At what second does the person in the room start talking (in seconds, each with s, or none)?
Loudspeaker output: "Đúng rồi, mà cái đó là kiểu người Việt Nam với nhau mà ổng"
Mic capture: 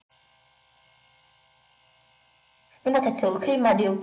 2.8 s